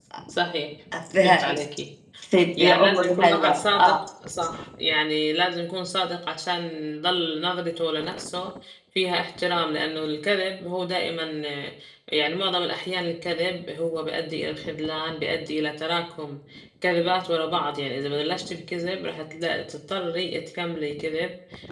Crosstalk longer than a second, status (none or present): present